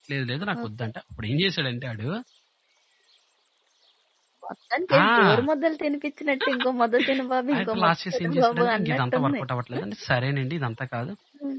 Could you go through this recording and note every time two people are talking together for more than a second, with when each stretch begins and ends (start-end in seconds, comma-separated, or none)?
7.5-9.4